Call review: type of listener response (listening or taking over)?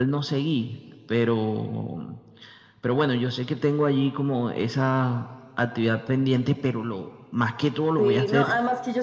taking over